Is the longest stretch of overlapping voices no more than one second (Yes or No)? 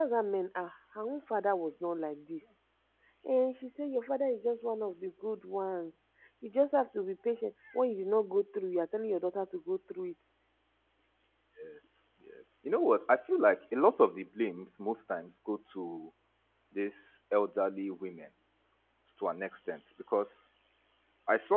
Yes